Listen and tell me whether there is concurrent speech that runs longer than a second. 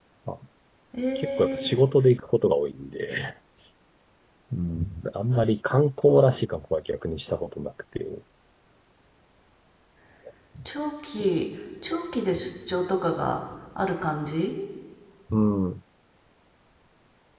No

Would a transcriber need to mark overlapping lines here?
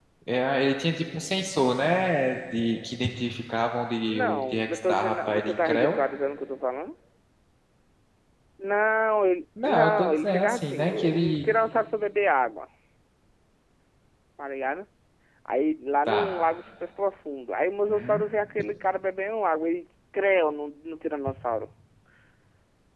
Yes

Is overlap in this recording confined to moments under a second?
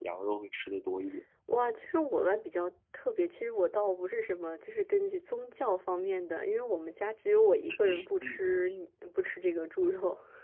Yes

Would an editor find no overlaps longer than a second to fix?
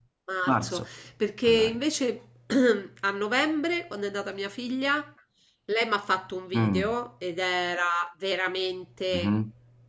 Yes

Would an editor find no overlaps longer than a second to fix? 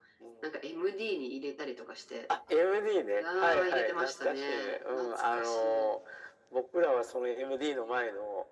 No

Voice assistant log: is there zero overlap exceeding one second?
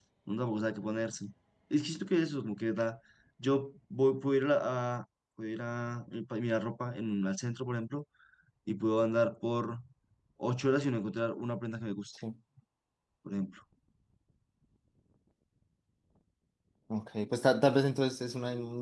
Yes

